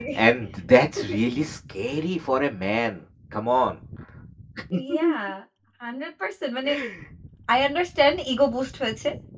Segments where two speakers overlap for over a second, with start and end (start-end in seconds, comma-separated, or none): none